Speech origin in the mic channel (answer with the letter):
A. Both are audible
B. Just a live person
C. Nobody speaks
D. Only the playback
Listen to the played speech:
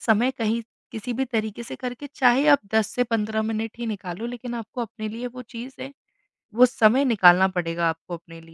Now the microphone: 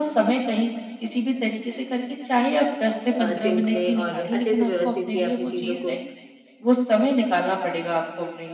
A